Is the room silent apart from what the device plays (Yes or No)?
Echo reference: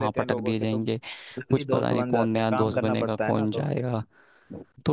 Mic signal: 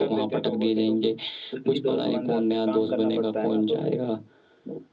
Yes